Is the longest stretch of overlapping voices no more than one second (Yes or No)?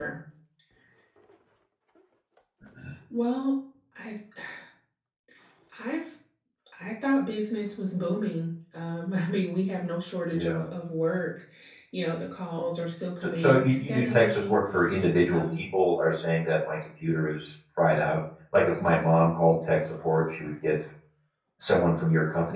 No